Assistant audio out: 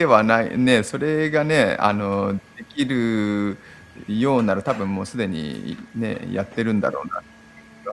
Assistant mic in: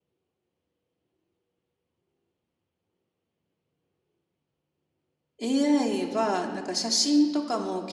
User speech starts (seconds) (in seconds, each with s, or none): 5.4 s